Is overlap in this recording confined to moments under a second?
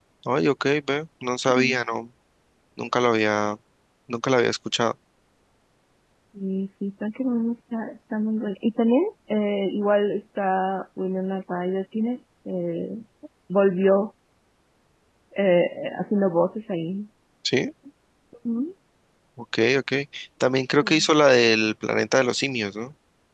Yes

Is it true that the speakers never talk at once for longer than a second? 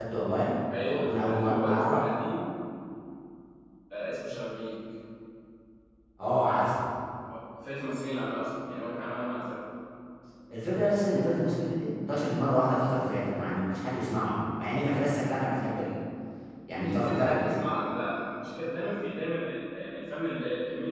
No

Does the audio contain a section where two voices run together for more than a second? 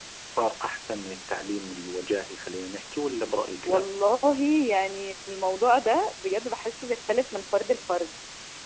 No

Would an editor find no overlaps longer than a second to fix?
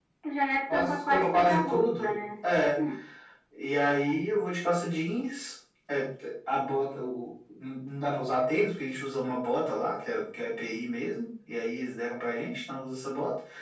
No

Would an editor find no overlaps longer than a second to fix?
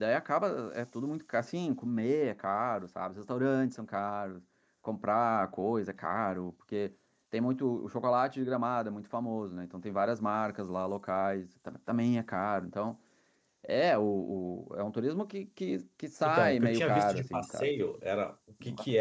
No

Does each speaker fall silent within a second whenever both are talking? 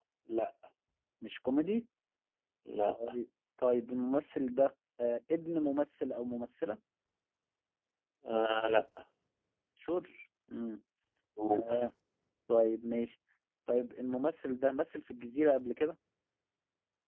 Yes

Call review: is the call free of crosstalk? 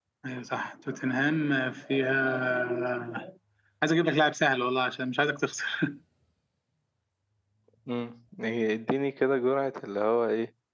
Yes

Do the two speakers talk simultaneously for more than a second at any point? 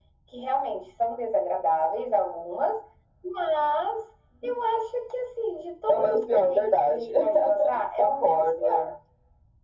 Yes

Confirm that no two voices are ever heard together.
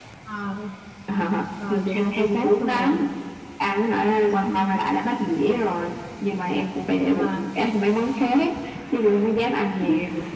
No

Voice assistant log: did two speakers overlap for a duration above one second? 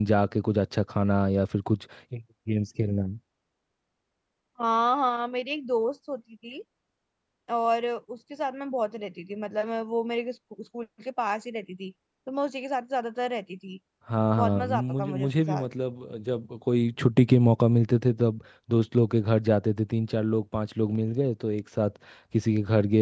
Yes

